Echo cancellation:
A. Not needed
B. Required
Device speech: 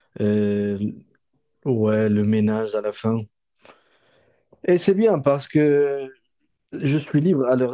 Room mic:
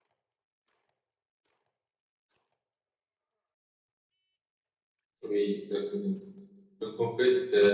A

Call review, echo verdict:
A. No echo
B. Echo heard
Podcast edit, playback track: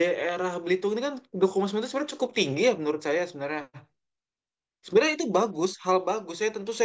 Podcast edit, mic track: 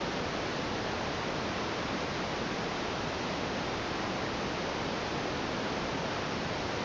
A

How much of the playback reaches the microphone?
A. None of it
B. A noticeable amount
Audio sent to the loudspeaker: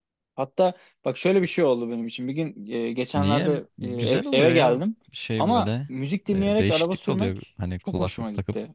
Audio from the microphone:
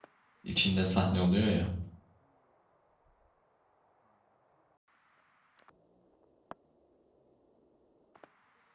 A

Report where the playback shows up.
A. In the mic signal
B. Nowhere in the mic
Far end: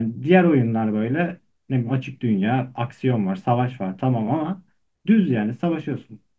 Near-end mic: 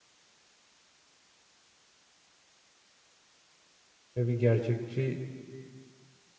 B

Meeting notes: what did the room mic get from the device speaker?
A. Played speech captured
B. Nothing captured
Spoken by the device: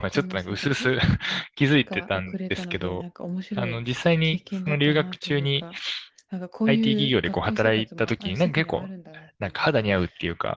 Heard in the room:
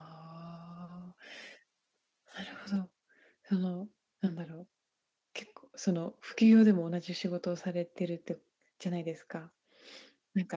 B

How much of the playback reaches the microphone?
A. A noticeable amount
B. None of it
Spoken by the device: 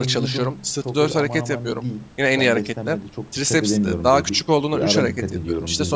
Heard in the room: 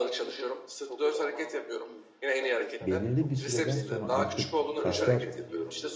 A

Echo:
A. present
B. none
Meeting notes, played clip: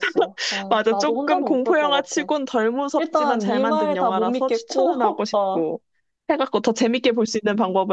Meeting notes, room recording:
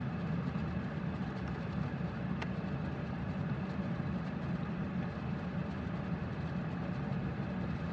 B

